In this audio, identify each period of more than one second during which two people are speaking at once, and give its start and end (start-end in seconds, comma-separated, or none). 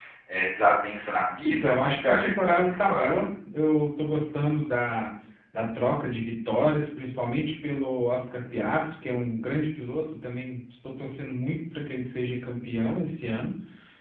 1.6-3.1